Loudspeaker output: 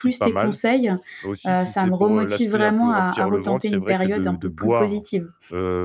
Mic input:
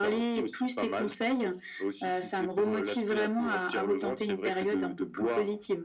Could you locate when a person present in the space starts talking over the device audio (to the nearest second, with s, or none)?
none